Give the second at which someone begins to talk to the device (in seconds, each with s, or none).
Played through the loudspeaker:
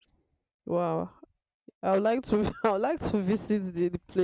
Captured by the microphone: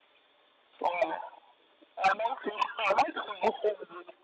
none